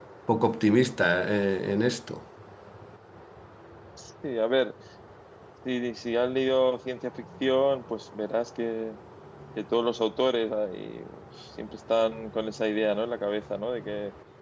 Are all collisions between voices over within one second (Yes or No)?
Yes